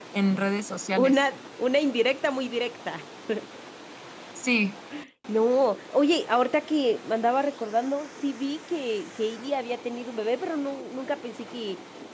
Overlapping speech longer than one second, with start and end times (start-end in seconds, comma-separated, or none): none